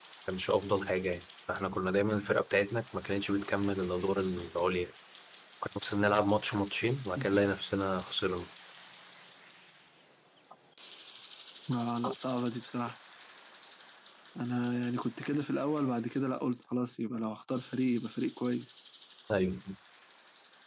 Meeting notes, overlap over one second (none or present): none